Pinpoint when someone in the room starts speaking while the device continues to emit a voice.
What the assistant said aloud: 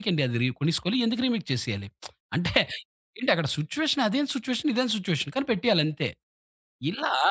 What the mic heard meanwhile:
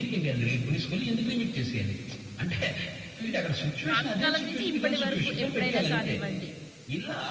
3 s

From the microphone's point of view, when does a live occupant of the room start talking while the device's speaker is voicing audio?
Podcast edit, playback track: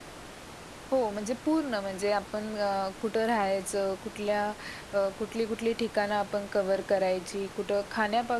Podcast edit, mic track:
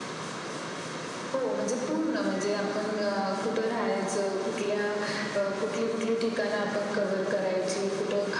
none

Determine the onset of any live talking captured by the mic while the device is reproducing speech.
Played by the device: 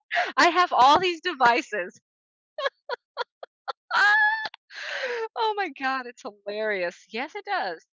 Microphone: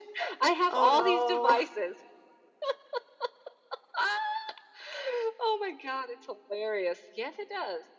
1 s

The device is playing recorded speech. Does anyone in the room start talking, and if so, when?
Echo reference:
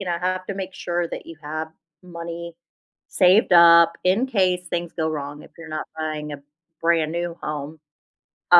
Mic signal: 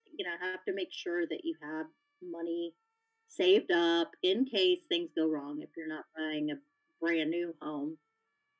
none

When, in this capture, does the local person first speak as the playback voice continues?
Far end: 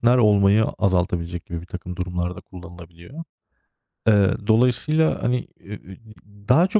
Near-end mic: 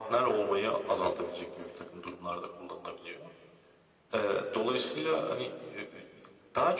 none

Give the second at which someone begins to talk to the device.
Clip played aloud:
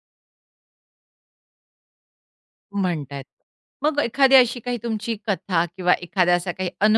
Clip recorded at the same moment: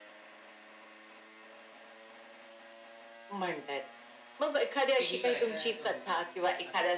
5 s

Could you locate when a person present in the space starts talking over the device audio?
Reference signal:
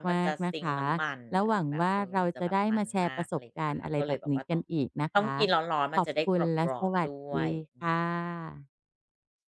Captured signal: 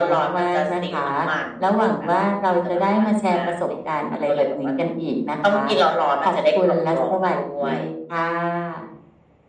none

